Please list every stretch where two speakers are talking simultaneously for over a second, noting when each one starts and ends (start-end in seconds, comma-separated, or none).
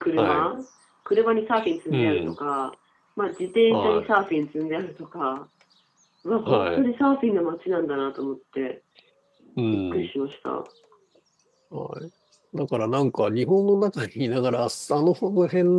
none